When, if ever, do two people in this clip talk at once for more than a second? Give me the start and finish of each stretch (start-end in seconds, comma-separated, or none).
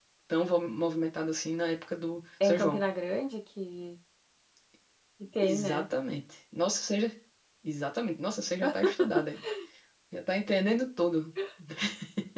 none